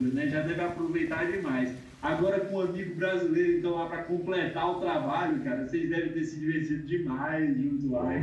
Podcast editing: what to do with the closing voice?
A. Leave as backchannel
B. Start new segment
B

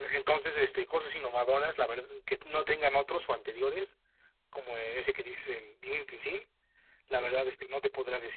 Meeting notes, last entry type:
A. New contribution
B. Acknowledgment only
B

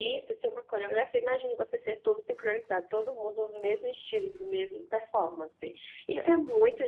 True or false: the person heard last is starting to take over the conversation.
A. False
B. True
A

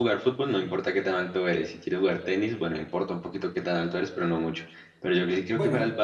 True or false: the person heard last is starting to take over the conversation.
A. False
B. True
A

